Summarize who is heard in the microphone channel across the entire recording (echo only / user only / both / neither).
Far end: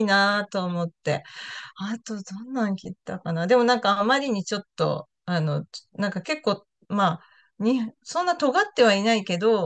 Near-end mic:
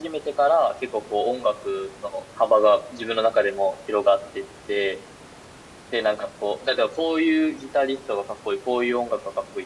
user only